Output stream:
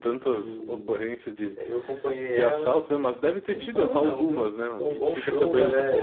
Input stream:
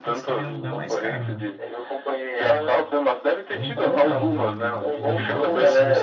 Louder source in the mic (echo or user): echo